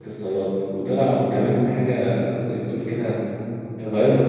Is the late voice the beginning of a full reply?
No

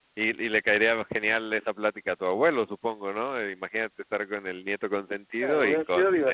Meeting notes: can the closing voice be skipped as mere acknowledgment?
No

